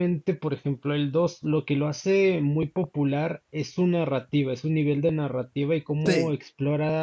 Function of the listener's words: listening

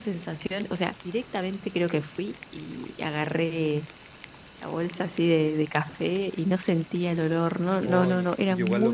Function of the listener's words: taking over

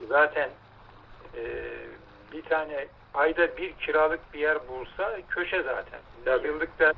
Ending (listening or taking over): listening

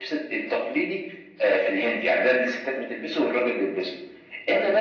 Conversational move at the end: listening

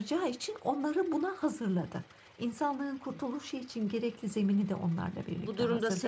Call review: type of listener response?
taking over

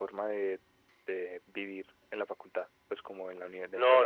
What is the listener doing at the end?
taking over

